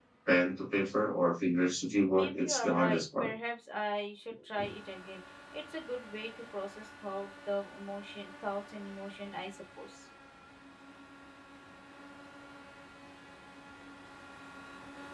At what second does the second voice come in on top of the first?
2.1 s

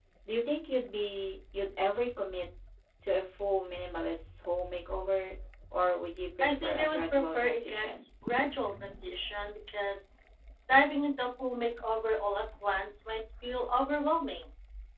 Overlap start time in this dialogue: 6.4 s

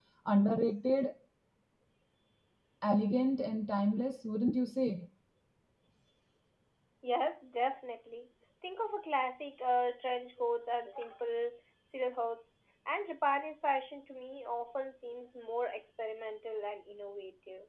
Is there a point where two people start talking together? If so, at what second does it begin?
none

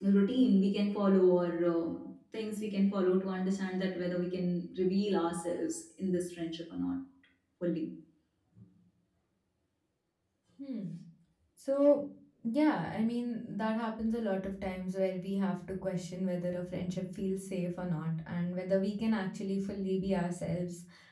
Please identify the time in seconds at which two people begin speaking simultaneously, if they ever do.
none

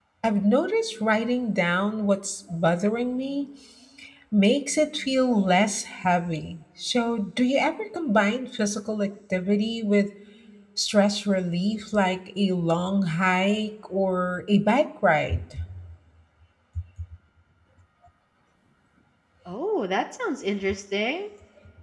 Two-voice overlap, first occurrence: none

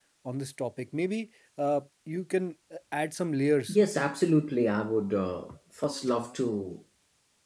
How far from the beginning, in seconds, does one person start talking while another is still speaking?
none

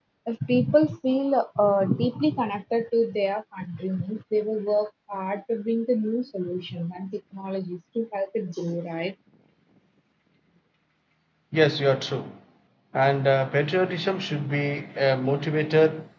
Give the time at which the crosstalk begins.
none

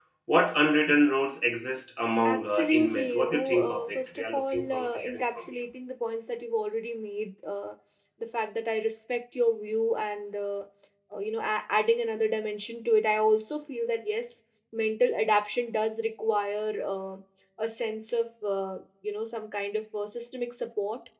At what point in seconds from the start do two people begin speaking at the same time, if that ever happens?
2.2 s

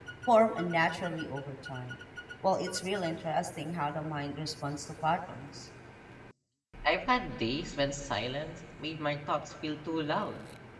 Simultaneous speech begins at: none

